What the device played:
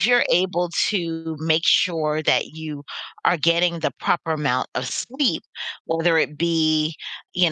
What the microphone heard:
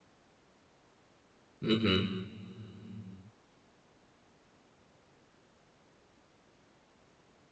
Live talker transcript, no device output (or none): hmm